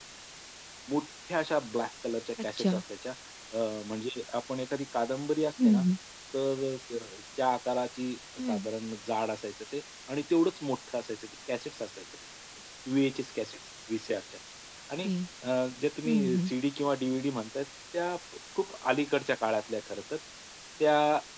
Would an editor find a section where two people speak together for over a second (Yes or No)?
No